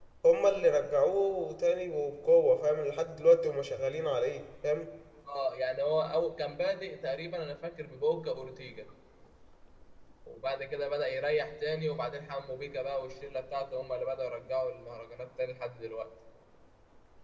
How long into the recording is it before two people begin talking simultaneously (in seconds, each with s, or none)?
none